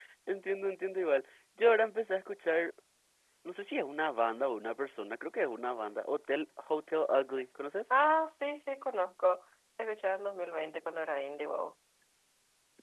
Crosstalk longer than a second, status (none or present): none